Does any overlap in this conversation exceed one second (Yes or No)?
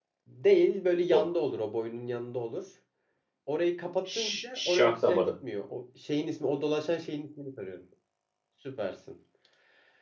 Yes